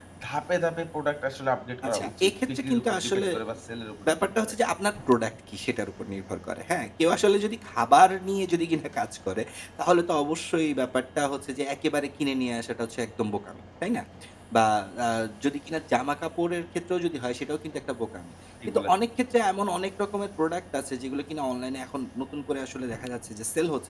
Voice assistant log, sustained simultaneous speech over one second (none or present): present